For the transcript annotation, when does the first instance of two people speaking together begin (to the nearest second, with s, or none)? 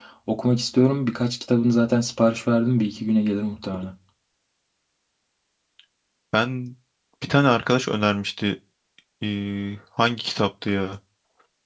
none